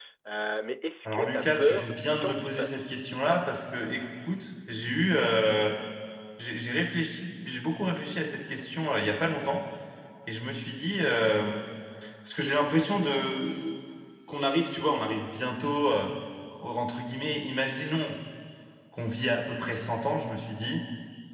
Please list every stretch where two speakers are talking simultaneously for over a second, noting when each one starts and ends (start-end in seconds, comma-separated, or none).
1.1-3.0